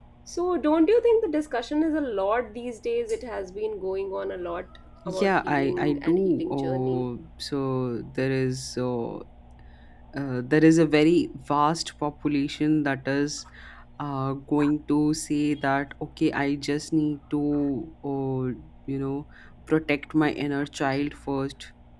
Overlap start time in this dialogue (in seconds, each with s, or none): 5.0 s